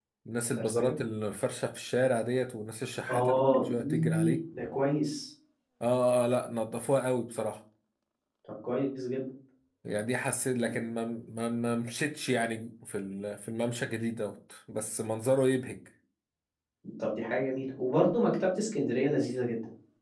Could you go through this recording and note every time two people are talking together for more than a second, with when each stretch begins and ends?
3.1-4.3

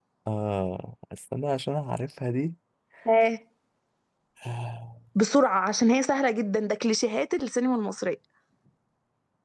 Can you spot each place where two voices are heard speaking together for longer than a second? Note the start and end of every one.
none

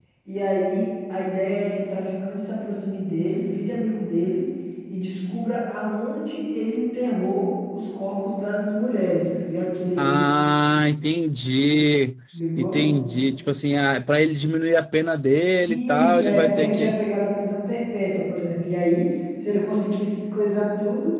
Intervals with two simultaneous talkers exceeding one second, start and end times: 15.6-17.0

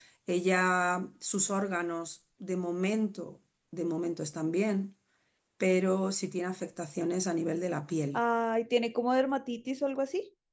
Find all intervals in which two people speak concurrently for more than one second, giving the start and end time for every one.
none

